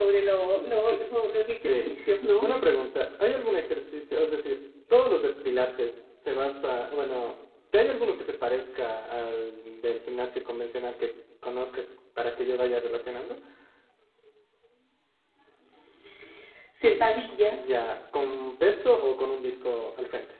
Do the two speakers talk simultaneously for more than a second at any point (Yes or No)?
No